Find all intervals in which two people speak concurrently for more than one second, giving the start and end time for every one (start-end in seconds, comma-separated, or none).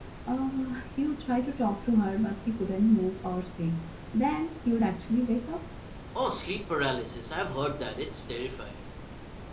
none